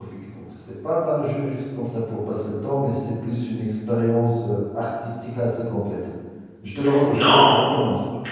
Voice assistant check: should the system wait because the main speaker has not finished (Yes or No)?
No